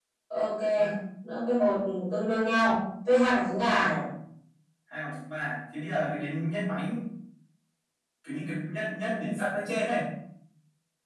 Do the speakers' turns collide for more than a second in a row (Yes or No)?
No